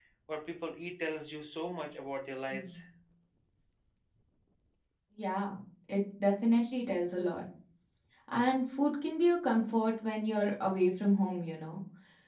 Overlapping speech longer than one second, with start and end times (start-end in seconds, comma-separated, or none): none